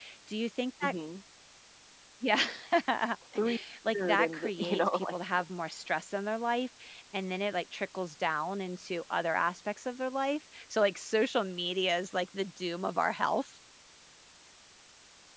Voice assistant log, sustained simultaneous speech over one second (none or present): present